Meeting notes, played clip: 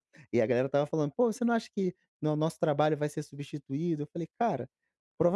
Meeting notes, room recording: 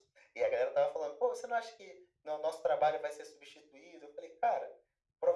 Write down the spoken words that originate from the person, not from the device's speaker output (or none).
none